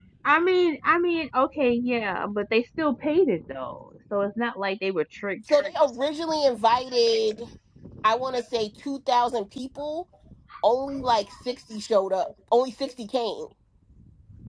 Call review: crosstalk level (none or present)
none